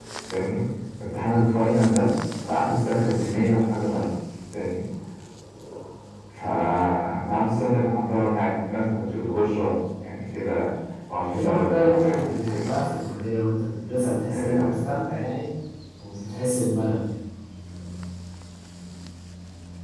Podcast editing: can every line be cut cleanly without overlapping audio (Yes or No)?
No